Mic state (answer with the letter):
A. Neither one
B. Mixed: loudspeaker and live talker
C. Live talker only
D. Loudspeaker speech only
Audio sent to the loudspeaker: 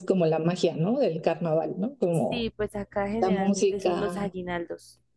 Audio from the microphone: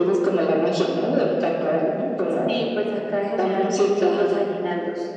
D